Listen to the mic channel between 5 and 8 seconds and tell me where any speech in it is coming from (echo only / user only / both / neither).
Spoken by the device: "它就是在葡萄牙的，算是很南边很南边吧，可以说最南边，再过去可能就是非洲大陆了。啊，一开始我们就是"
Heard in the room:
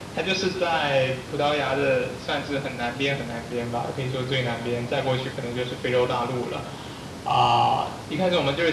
echo only